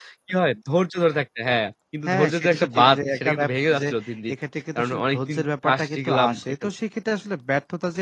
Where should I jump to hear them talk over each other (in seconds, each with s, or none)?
2.1 s